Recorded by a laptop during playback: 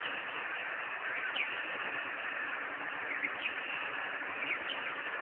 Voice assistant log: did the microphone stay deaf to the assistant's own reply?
Yes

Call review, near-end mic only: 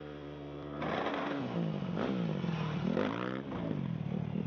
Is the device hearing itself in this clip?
No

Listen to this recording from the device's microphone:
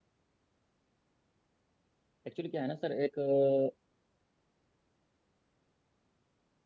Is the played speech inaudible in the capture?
Yes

